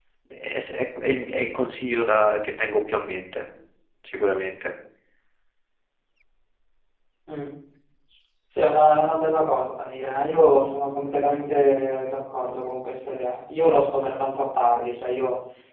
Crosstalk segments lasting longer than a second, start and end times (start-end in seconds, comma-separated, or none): none